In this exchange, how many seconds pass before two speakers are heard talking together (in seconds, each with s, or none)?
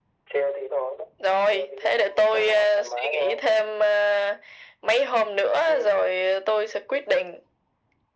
1.5 s